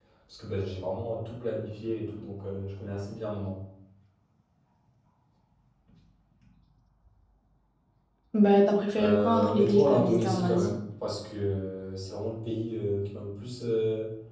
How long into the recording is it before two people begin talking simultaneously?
9.0 s

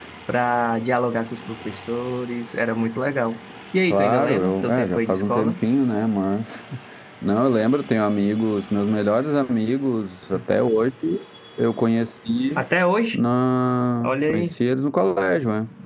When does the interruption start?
3.9 s

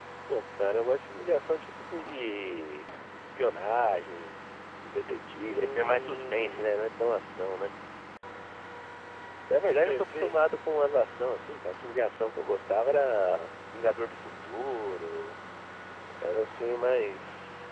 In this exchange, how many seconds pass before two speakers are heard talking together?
5.4 s

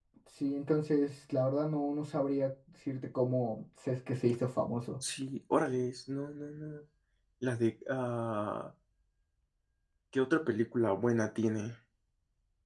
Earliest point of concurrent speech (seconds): none

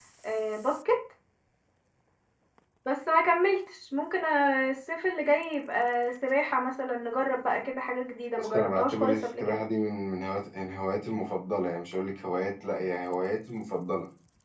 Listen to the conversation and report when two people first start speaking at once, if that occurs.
8.4 s

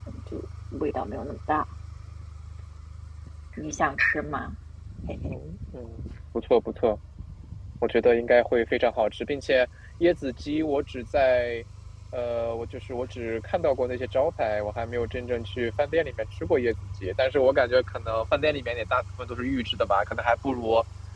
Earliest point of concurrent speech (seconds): none

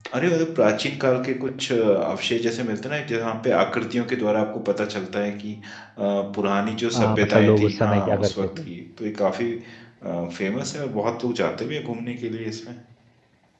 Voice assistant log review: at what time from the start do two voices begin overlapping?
6.9 s

